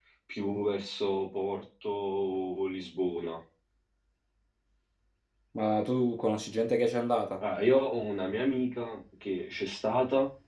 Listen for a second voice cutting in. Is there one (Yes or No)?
No